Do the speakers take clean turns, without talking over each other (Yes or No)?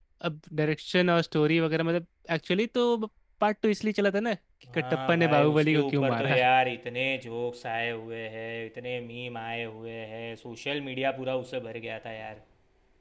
No